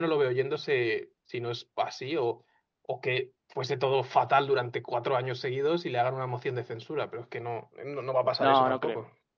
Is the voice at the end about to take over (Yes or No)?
Yes